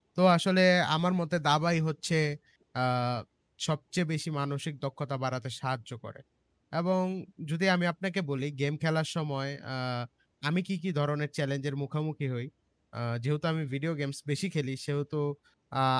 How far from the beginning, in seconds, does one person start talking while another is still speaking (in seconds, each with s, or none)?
none